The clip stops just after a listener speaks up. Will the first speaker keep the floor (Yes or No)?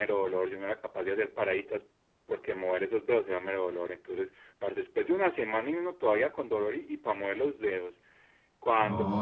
Yes